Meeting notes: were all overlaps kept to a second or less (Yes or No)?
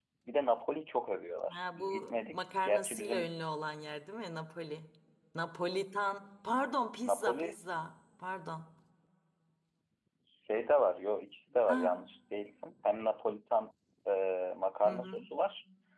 No